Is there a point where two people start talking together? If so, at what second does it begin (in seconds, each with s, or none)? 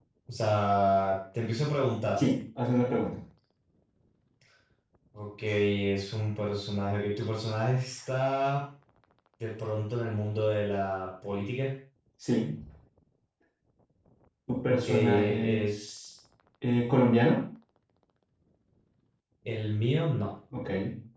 14.7 s